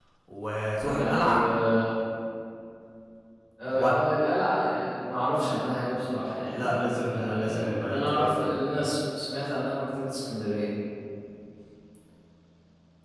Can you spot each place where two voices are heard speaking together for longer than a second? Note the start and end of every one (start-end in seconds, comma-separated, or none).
6.5-8.3